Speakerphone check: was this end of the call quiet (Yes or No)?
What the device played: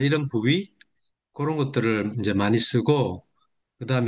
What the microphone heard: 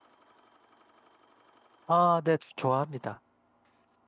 No